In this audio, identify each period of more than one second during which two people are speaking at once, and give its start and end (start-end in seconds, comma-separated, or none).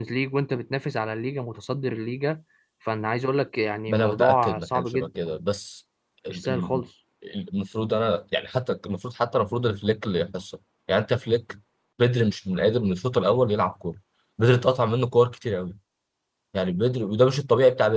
3.9-5.1